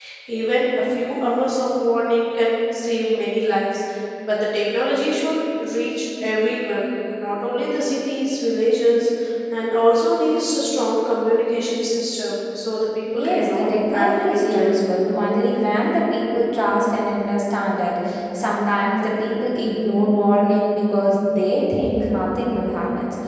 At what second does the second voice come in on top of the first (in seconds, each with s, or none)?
13.1 s